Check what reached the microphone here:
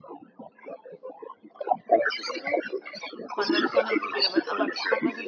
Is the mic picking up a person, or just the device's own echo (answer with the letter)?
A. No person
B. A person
B